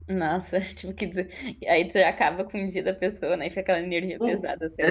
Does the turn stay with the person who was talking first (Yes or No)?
No